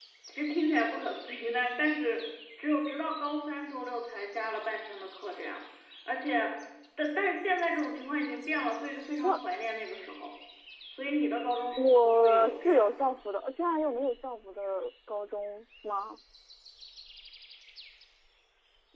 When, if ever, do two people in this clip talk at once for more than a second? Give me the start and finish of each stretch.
11.8-13.1

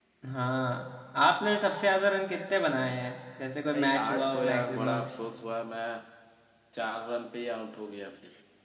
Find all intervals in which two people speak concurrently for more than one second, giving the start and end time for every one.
3.7-5.0

